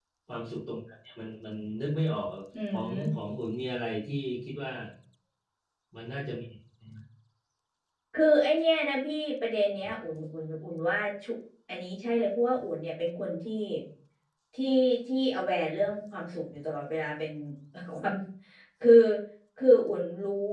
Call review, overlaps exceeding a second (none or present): none